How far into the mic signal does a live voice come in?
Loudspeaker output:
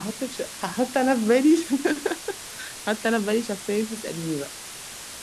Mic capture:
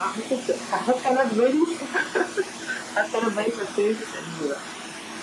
none

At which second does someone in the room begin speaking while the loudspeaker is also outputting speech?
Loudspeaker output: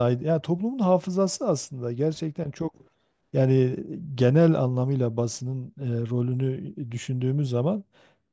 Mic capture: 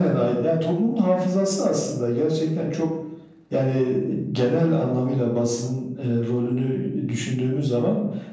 none

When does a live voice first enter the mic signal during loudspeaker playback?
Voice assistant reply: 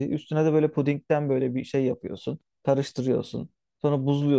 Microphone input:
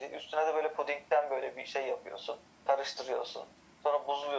none

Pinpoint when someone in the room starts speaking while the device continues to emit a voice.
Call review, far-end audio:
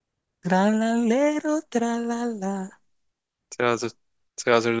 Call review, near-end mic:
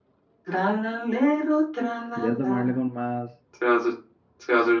2.1 s

